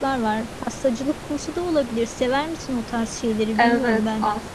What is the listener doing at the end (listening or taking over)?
taking over